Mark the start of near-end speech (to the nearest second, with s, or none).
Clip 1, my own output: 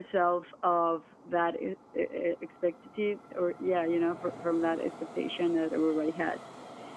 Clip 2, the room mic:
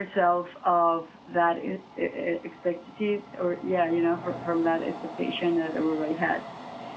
none